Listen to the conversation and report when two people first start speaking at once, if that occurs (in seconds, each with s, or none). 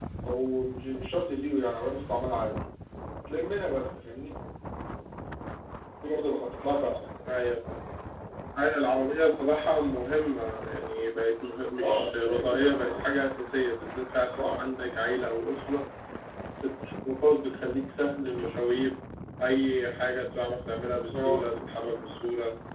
11.8 s